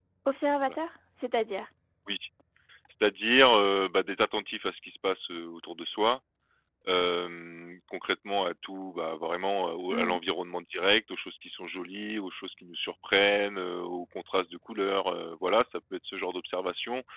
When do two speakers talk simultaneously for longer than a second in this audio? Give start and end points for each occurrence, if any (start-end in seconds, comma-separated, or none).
none